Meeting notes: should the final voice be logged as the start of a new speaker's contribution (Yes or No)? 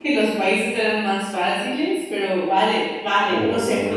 Yes